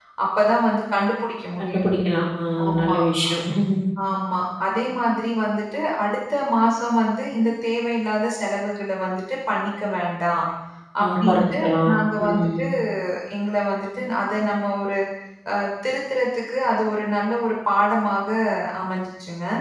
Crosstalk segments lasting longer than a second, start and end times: 11.0-12.6

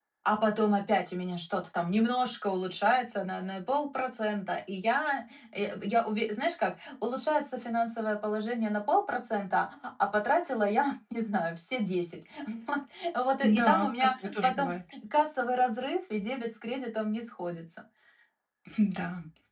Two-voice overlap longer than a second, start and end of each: 13.4-14.7

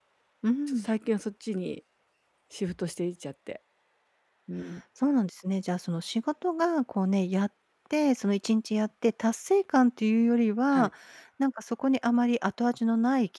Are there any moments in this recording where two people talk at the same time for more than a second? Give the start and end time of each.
none

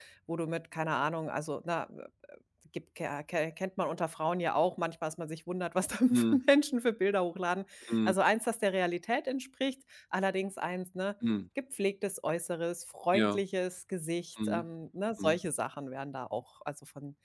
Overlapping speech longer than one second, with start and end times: none

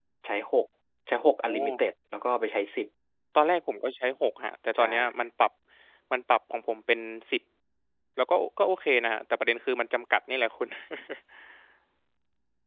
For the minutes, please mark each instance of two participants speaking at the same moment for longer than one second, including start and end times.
none

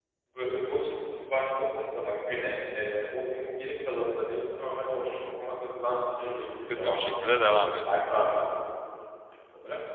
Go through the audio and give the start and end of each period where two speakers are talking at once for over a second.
6.8-8.0

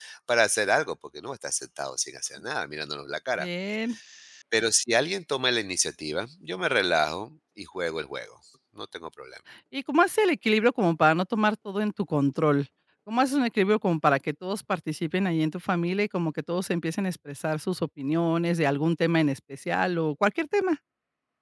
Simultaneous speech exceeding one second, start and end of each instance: none

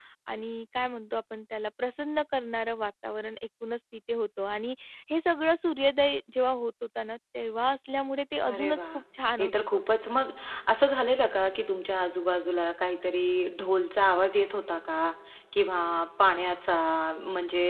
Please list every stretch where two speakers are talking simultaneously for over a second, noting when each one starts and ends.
none

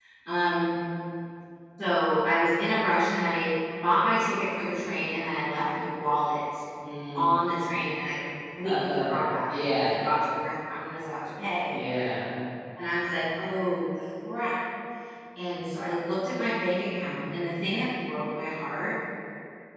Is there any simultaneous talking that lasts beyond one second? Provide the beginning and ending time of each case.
8.6-9.9

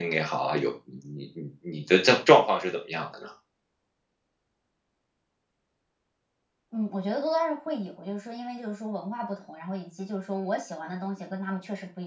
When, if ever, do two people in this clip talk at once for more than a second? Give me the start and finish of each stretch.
none

